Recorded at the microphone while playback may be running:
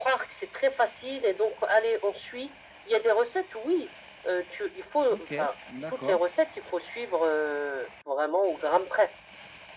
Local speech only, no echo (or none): OK, d'accord.